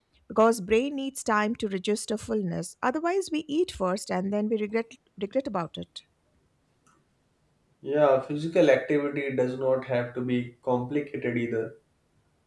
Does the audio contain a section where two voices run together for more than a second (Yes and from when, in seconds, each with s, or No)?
No